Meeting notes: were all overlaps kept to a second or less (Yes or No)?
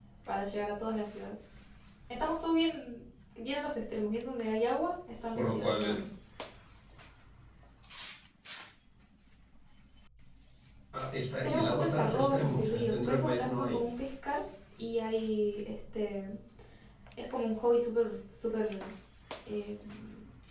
No